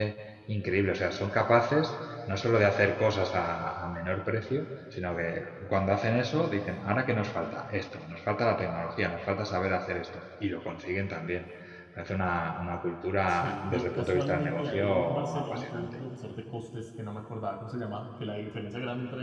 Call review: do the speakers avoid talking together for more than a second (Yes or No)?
No